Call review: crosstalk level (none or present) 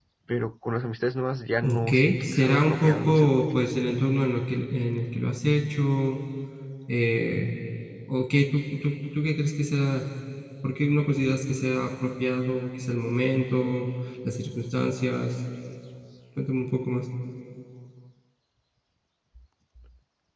present